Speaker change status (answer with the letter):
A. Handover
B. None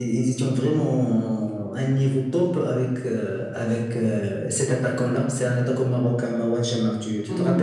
A